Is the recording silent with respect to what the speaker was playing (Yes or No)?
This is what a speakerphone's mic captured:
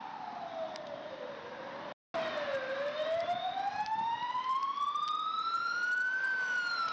Yes